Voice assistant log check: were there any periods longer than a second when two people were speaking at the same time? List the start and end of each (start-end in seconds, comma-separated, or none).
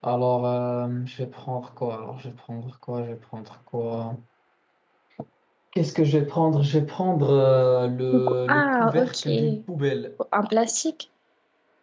8.1-9.6